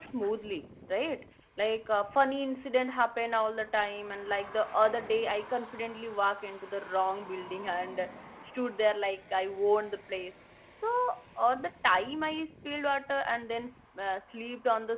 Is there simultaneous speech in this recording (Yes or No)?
No